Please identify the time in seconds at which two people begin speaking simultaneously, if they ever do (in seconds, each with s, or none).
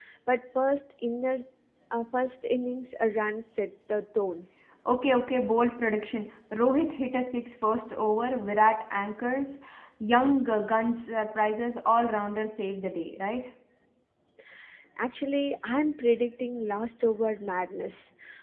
none